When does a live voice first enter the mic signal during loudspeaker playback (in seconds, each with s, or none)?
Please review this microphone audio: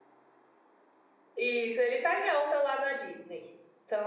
1.4 s